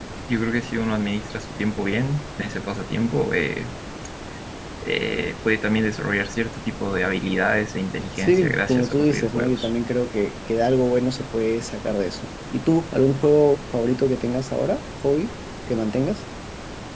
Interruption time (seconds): 8.2 s

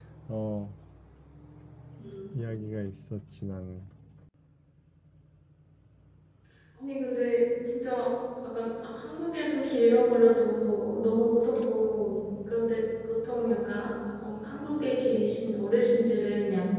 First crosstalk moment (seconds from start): none

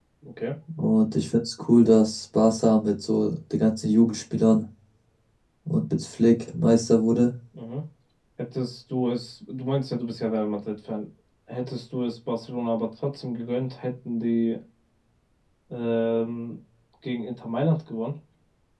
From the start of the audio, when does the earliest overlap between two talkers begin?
none

